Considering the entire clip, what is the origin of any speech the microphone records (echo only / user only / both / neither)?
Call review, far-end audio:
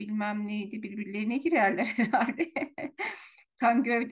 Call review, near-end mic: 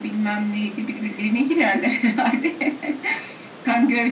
echo only